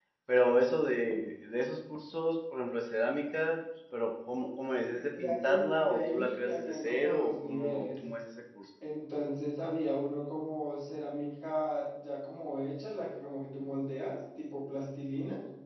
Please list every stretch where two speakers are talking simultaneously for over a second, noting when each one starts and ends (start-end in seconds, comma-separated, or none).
5.1-7.9